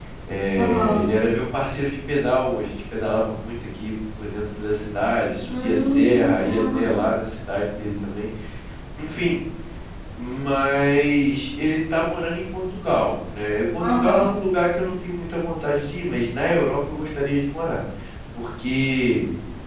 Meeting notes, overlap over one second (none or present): present